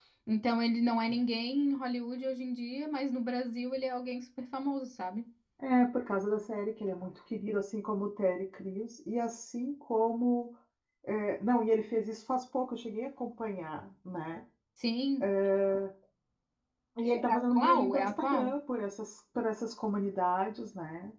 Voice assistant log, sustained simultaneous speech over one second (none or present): present